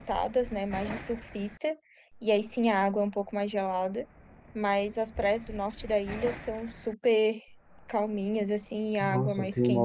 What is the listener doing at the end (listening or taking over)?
taking over